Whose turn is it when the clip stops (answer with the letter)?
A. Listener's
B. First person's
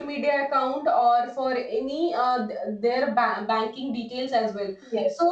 B